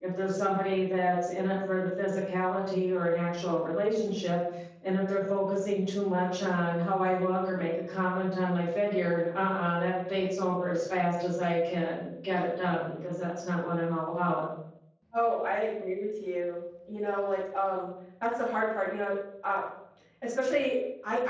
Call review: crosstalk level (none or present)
none